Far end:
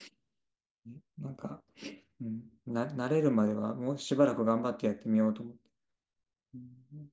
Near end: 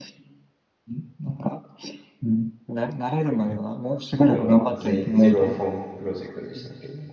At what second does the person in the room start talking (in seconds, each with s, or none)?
4.3 s